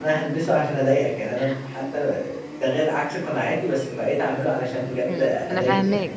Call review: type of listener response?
taking over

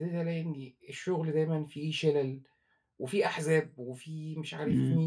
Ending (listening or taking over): taking over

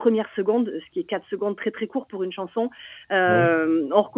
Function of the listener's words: listening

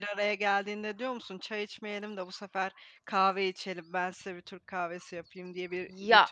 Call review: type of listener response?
taking over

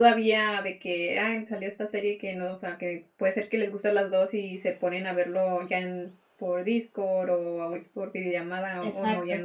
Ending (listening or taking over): taking over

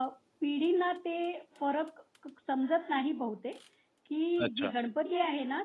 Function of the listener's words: listening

